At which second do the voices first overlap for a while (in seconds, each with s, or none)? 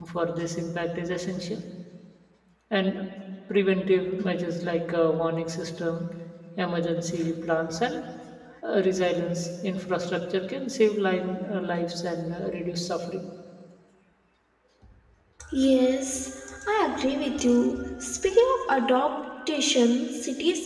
none